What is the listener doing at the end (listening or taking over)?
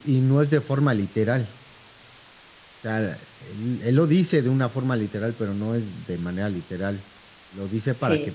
listening